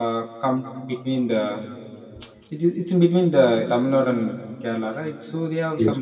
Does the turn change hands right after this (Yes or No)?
No